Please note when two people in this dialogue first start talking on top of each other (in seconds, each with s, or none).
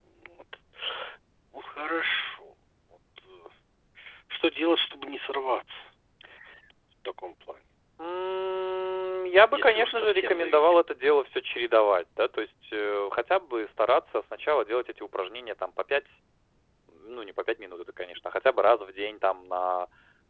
9.5 s